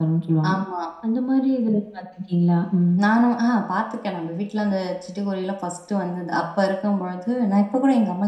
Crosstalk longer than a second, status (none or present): none